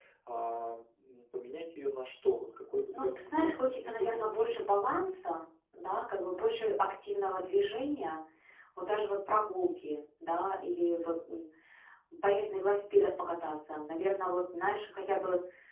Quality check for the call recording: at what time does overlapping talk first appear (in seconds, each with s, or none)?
2.9 s